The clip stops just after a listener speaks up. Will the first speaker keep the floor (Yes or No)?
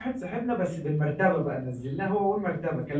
Yes